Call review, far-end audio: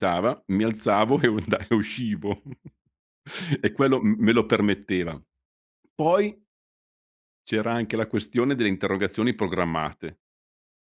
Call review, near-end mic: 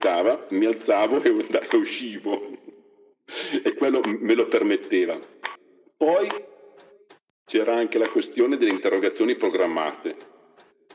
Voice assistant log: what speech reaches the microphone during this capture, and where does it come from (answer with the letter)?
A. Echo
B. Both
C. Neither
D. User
A